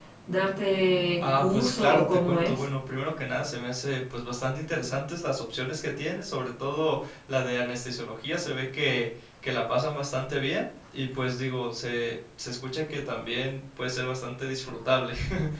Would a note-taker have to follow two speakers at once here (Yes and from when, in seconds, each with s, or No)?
Yes, from 1.2 s